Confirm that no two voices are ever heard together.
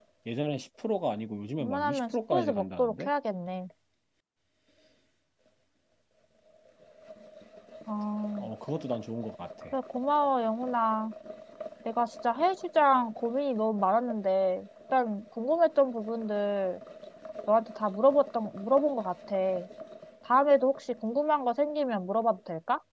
No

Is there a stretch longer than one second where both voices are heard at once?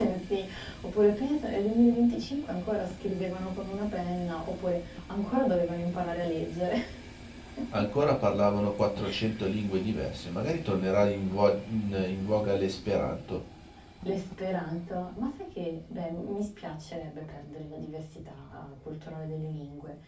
No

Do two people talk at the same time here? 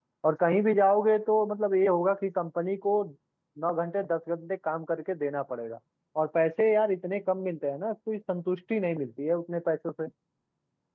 No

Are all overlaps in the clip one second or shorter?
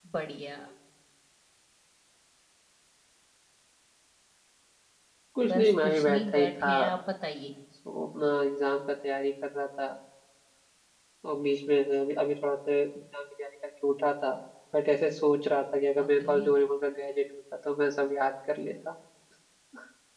No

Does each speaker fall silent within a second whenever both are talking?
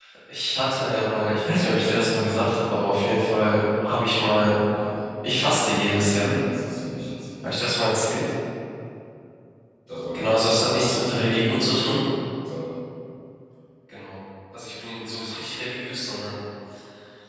No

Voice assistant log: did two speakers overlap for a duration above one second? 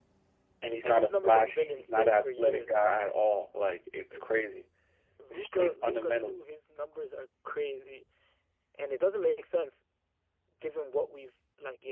Yes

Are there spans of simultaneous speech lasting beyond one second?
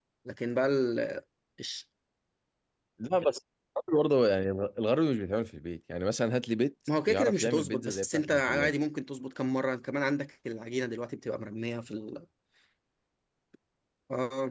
Yes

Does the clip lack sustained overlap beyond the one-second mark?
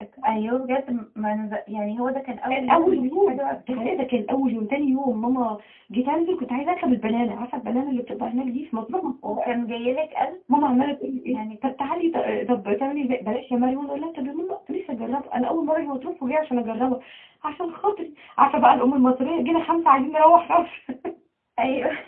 No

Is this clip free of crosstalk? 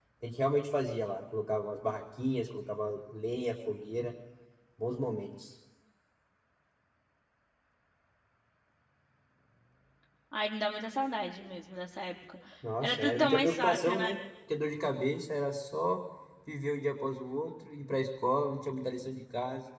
No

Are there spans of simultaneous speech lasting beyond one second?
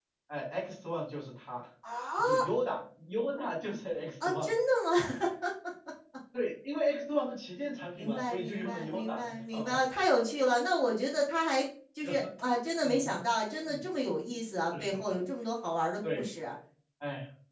Yes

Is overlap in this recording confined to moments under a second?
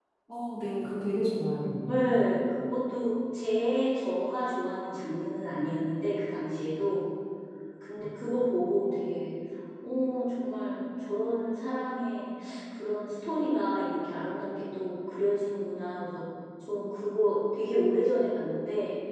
Yes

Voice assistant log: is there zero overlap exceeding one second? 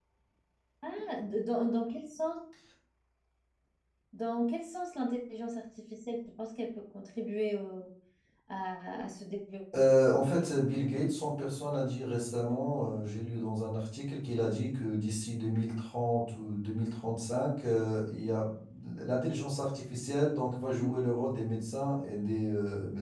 Yes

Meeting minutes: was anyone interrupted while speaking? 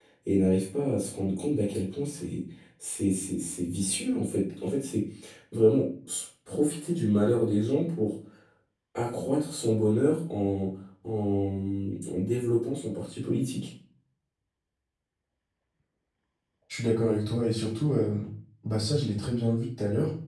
No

